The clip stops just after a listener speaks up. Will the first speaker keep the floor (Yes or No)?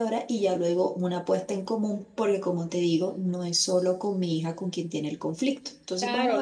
No